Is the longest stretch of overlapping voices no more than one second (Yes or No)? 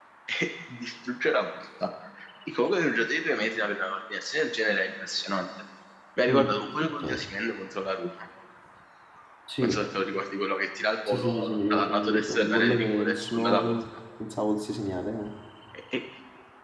No